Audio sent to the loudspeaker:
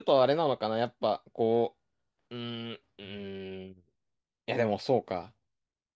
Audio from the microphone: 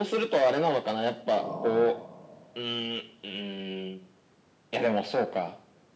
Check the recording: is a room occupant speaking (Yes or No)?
Yes